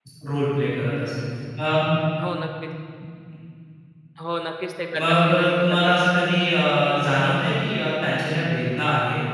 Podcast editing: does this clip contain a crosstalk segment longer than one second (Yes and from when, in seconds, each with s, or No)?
Yes, from 5.0 s